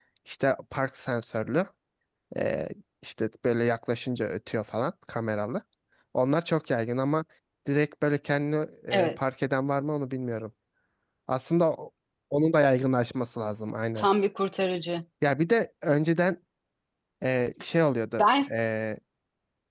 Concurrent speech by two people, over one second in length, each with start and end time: none

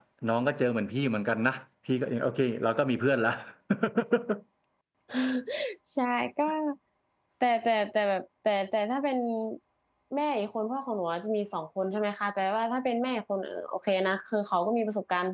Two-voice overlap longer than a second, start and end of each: none

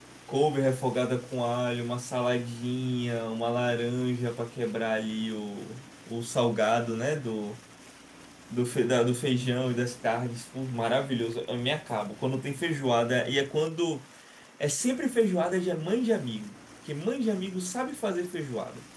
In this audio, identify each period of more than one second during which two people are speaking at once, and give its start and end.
none

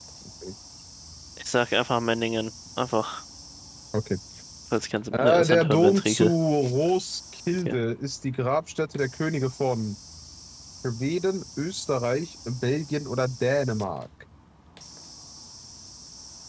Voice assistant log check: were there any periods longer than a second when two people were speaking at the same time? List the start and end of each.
5.1-6.3

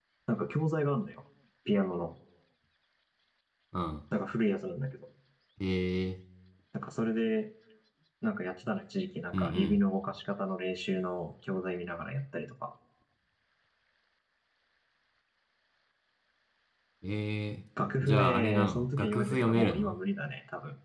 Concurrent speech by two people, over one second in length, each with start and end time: 18.0-19.9

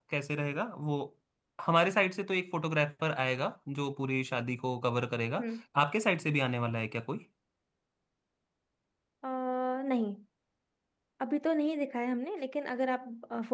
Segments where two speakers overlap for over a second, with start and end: none

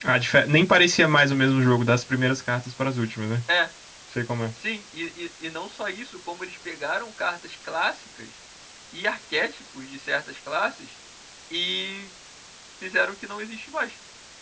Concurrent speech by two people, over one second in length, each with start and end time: none

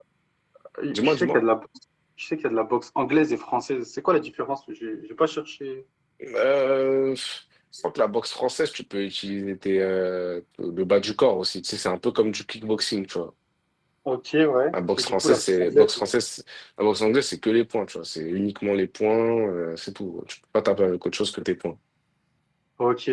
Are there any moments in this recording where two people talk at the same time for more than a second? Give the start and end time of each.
14.7-16.0

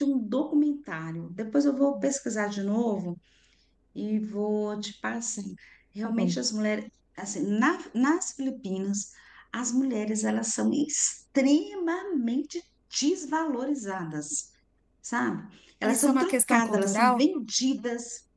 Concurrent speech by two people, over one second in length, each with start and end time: 15.8-17.2

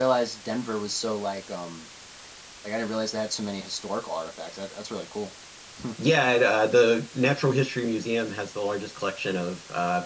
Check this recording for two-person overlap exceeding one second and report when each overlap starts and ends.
none

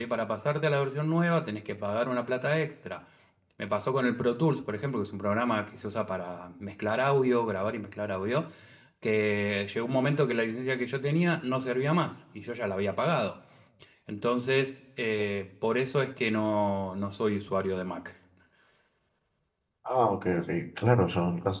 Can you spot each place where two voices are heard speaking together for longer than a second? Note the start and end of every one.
none

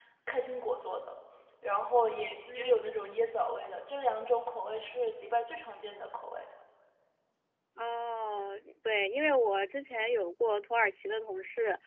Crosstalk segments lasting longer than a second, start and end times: none

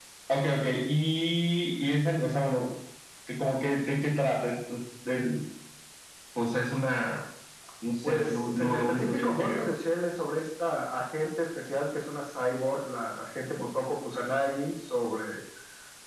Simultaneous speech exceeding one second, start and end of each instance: 8.1-9.7

